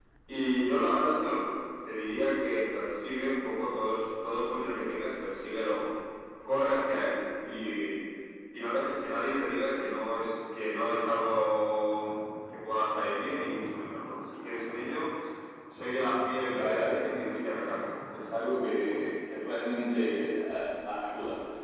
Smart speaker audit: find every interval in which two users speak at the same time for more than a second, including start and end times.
16.4-17.9

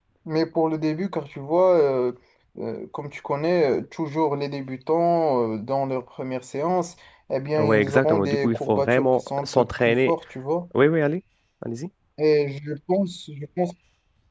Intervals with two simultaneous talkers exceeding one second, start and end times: 7.6-10.1

